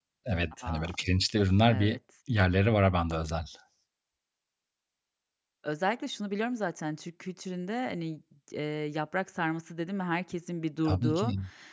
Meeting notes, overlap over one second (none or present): none